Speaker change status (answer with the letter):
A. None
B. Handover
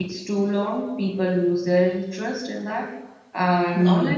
A